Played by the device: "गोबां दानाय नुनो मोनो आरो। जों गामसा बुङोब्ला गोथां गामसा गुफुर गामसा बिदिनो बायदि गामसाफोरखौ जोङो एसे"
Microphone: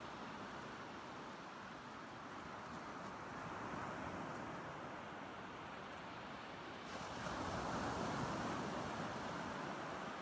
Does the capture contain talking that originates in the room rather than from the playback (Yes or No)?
No